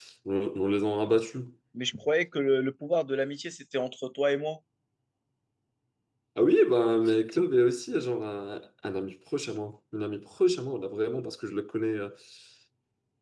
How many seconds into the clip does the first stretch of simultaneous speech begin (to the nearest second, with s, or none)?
none